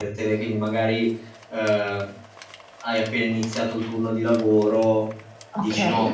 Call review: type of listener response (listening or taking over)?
listening